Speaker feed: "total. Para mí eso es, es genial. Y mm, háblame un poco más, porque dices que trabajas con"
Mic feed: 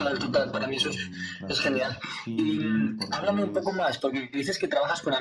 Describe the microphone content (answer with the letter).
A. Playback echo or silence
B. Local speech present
B